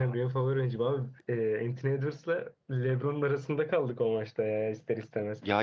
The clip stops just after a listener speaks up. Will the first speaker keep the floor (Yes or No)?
Yes